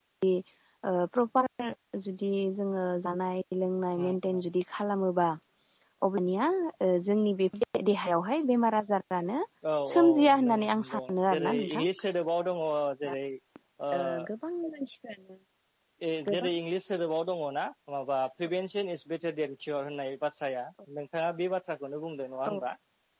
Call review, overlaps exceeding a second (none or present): present